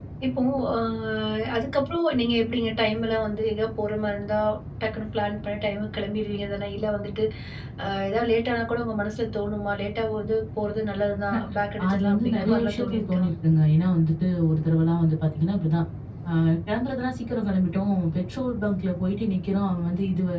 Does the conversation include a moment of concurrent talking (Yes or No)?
Yes